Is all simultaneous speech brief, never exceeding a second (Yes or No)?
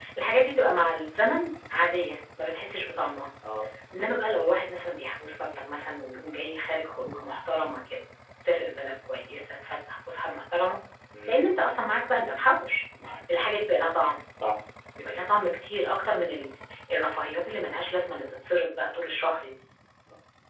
Yes